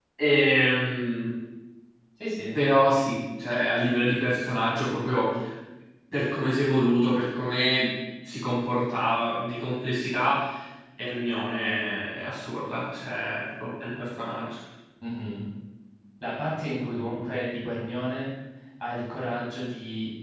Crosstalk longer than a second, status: none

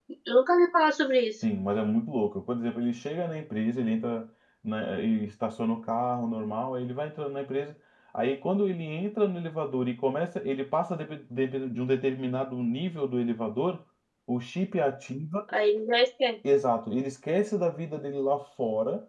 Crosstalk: none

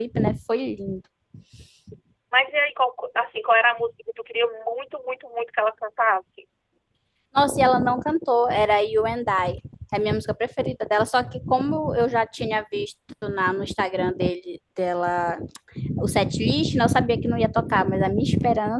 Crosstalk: none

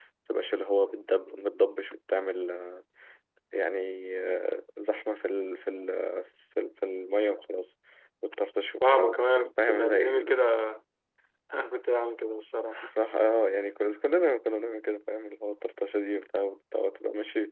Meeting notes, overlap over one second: present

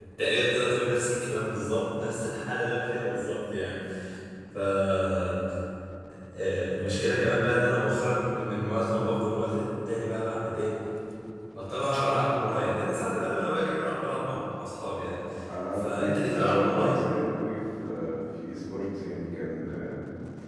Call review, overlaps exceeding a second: present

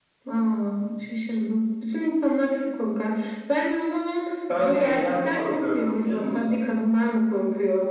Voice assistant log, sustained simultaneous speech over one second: present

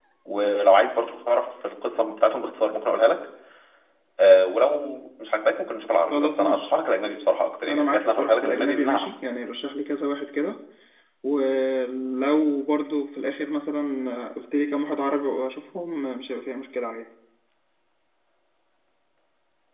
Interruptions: present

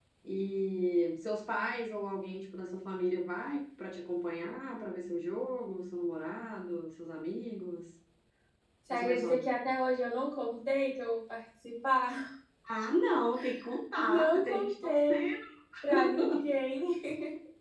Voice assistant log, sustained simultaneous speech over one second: present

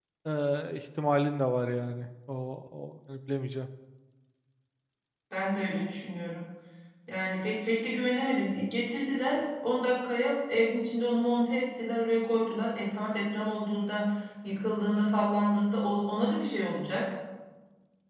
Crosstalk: none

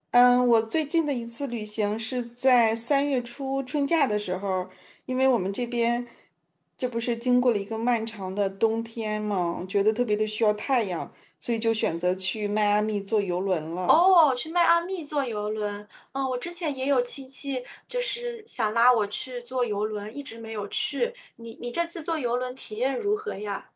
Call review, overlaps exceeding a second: none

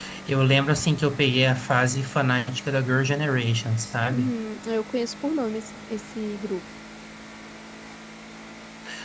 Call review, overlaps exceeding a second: none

